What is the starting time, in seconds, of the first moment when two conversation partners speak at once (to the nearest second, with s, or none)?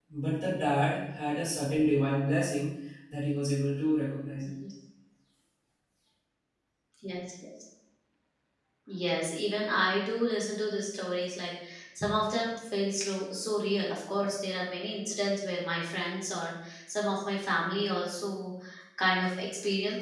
none